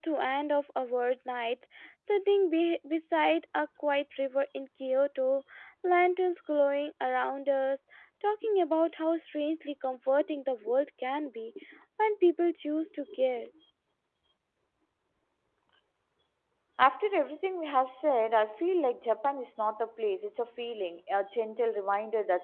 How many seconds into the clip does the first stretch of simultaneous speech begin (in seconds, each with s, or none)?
none